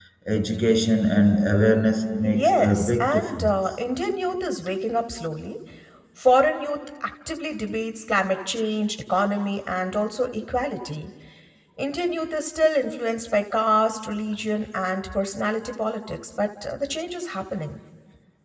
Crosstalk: present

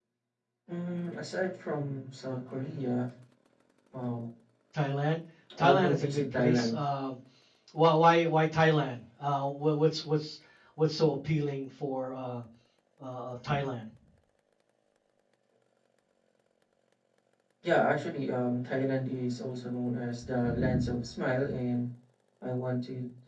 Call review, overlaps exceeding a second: present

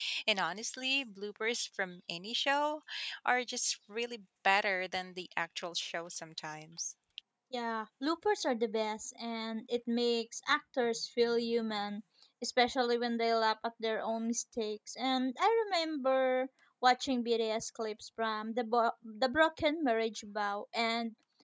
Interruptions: none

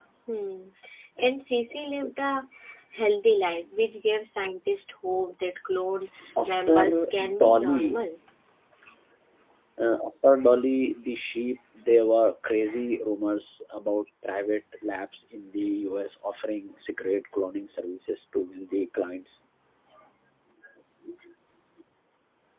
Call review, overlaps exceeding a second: present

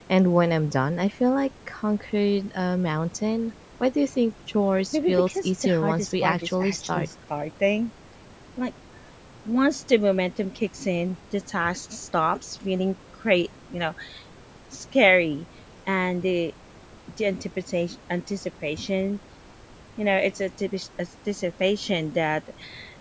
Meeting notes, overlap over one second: present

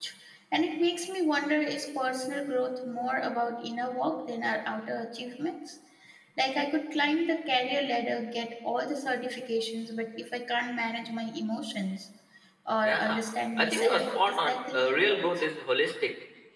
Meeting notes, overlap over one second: present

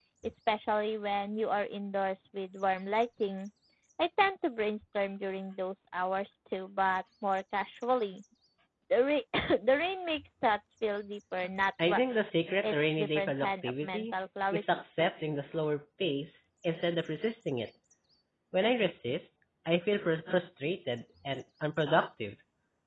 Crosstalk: present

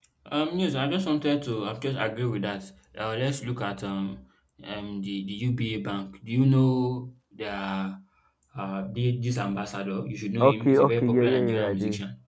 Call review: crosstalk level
present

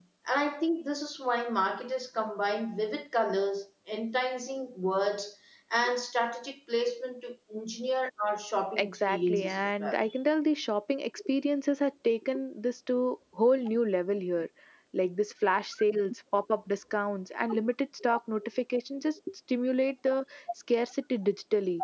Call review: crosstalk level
present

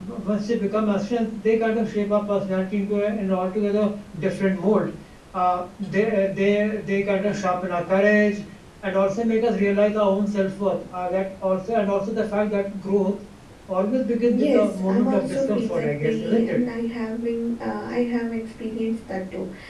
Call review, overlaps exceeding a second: present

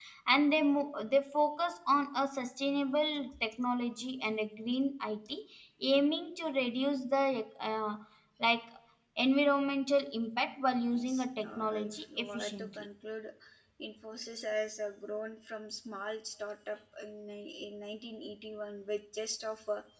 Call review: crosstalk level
present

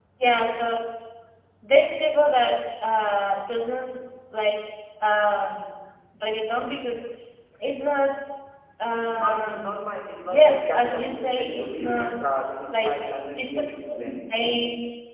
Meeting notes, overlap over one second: present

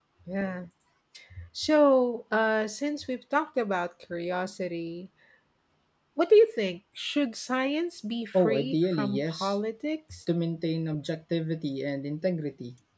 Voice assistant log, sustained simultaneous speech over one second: present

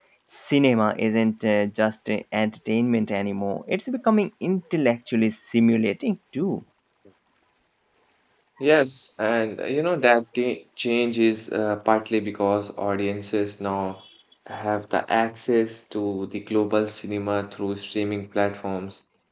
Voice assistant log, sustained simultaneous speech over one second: none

